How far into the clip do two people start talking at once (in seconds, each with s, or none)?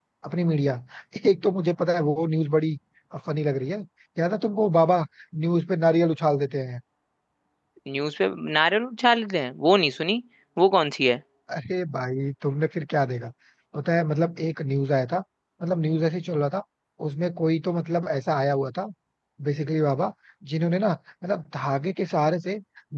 none